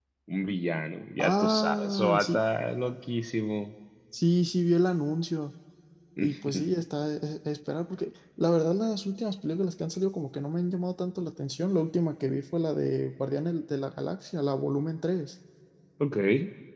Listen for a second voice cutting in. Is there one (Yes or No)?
Yes